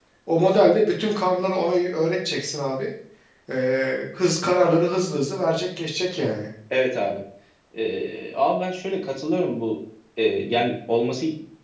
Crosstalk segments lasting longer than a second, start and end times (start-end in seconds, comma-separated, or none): none